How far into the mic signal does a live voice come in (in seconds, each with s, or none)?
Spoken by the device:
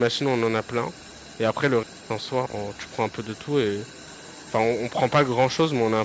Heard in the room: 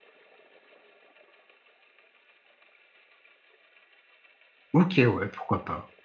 4.7 s